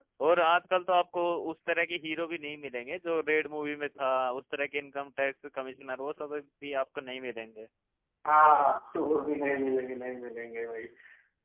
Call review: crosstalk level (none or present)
none